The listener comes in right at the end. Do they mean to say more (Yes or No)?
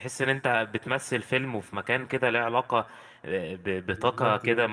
No